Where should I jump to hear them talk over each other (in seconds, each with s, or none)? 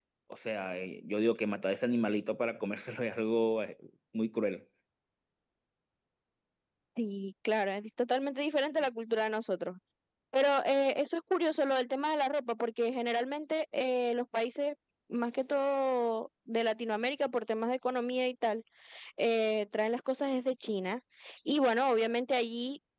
none